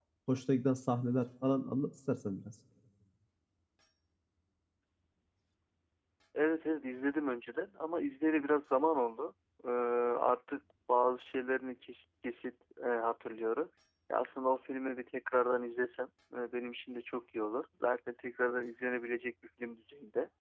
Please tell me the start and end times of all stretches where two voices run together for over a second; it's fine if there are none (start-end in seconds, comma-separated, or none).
none